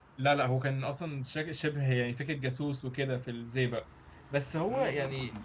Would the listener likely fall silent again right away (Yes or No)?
Yes